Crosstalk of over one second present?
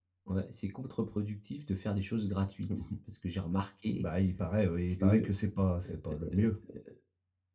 No

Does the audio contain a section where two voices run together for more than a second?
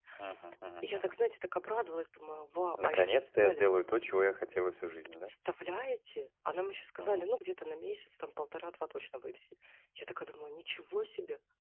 No

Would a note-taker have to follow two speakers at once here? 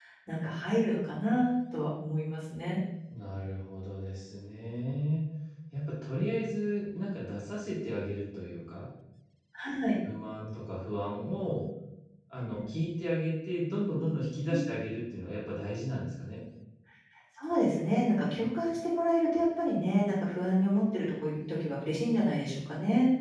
No

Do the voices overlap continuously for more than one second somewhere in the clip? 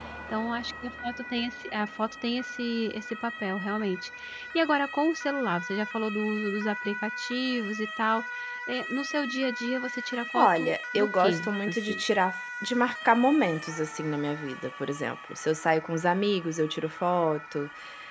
Yes, from 10.3 s

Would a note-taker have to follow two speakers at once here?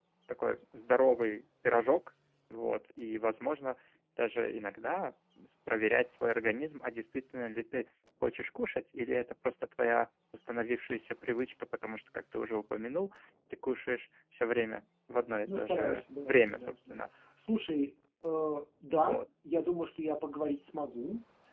Yes, from 15.5 s

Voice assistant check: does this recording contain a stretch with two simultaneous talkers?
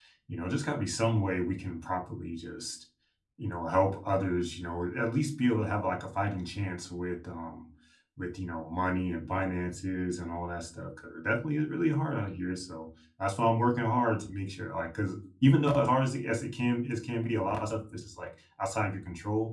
No

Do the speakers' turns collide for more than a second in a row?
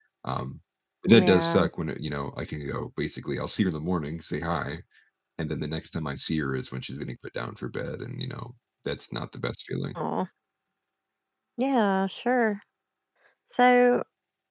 No

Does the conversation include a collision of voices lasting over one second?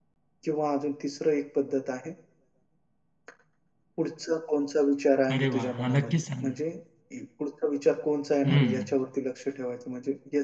Yes, from 5.3 s

